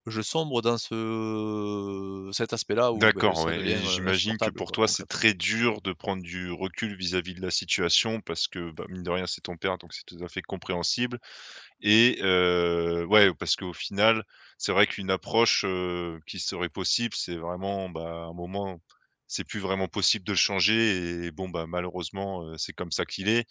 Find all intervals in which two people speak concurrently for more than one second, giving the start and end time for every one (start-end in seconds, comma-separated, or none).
2.9-5.0